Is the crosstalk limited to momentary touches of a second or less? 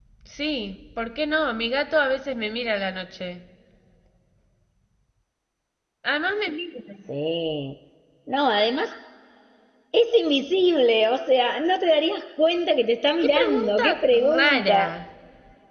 No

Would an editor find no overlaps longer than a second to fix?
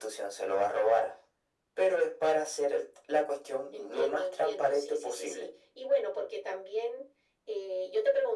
No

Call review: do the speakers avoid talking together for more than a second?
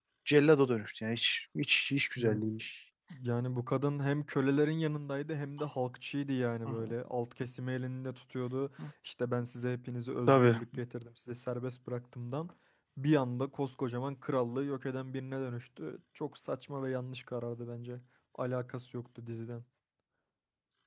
Yes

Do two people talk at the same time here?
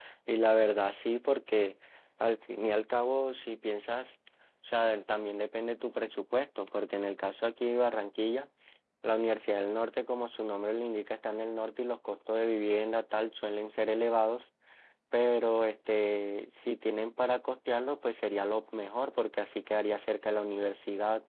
No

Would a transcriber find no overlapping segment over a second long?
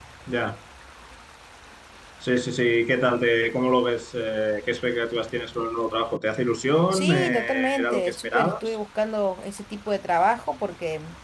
No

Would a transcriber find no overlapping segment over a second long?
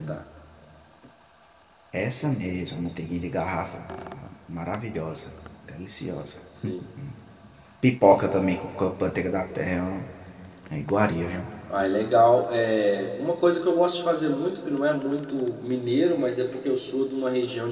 Yes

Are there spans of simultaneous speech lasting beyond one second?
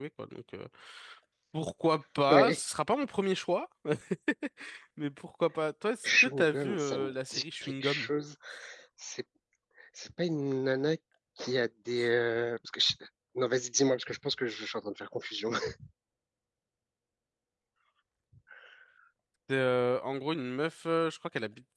Yes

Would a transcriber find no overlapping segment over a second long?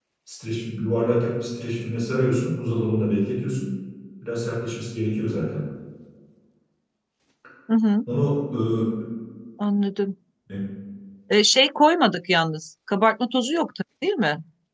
Yes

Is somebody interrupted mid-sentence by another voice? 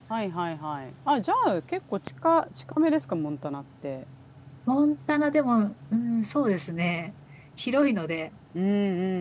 No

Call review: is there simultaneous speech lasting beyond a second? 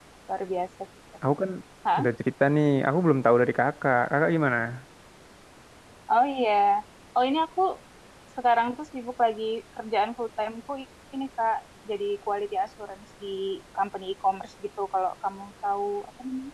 No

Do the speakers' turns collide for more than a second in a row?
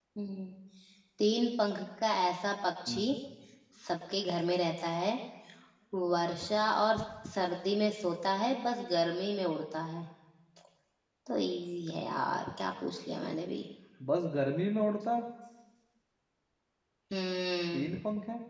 No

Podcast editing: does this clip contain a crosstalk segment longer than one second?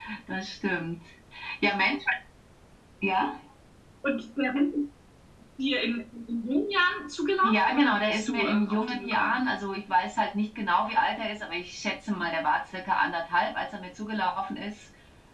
Yes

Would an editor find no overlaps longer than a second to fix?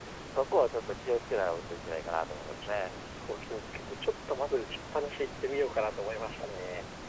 Yes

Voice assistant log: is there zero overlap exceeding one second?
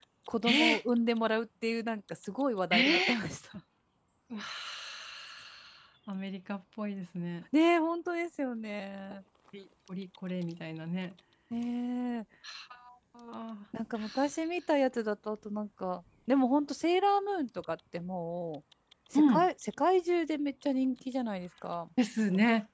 Yes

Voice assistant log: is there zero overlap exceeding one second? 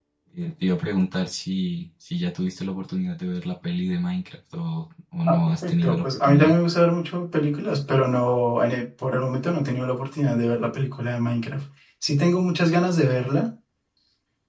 No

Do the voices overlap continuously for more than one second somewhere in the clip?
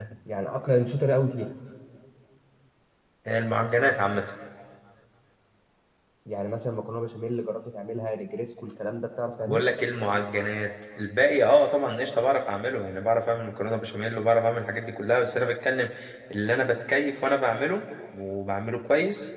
No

